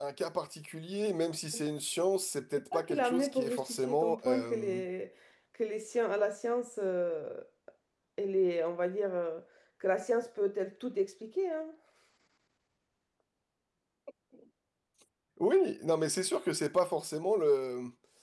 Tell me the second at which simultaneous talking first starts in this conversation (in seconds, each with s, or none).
2.7 s